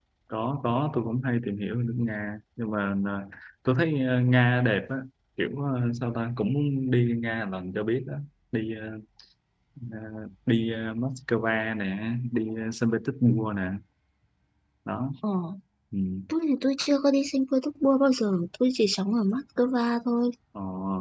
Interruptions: none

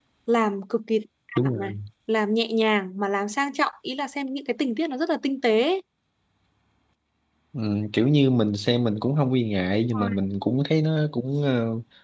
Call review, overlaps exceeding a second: none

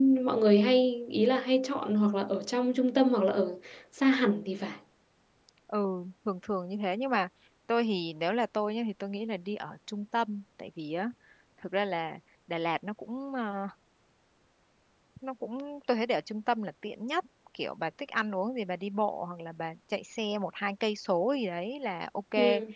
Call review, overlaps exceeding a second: none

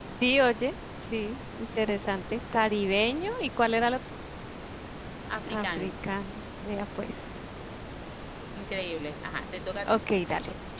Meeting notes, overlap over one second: none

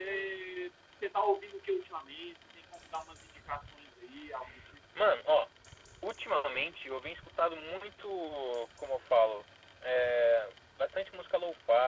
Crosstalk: none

